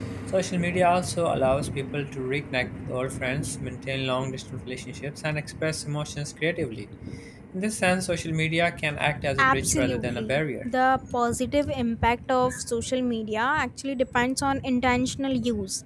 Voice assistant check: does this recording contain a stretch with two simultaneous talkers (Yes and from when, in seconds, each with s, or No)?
Yes, from 9.3 s